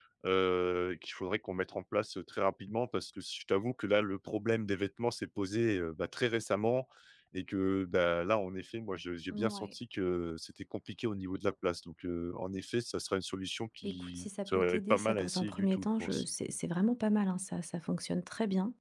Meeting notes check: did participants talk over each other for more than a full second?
Yes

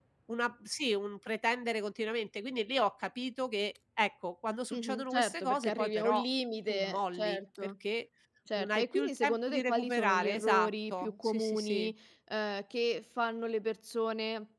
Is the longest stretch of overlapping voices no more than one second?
No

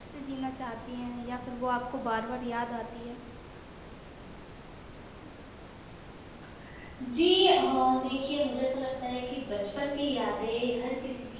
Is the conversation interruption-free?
Yes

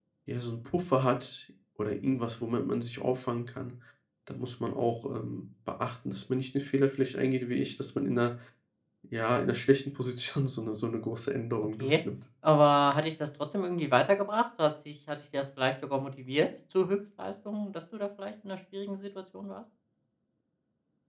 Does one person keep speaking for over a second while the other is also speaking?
No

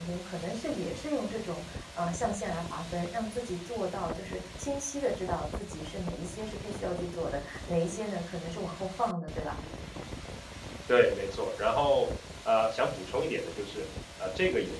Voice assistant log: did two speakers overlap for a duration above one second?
No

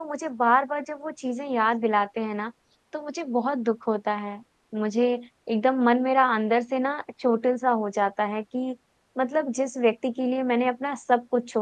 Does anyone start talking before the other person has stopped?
No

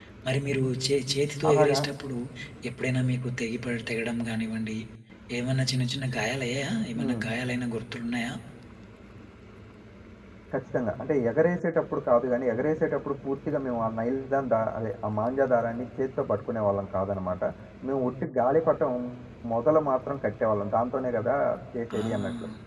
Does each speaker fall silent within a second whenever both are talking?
Yes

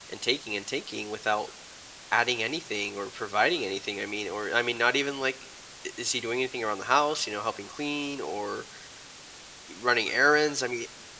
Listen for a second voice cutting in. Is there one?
No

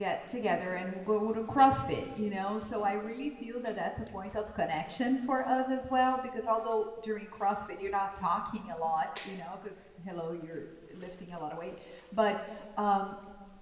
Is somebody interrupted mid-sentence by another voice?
No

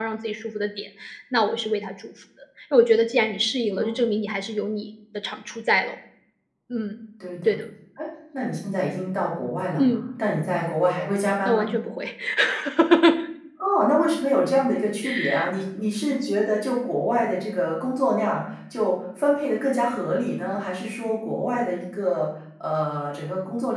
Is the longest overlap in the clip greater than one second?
No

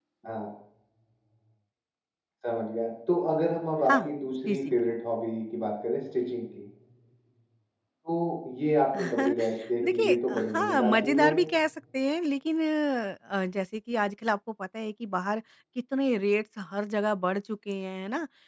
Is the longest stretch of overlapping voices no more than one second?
No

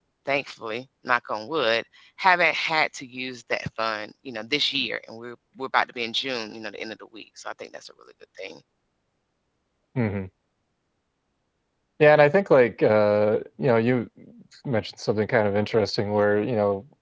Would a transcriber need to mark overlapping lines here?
No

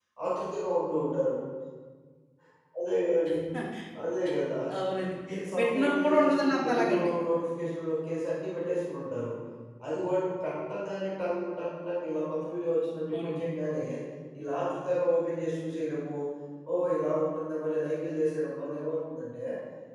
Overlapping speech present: Yes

